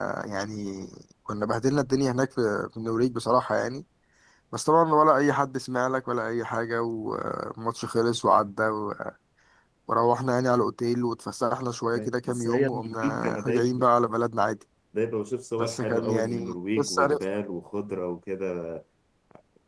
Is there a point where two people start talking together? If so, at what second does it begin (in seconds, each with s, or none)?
11.9 s